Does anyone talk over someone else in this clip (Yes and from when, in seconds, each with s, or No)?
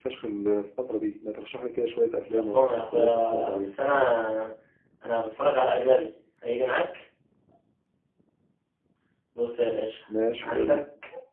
Yes, from 2.3 s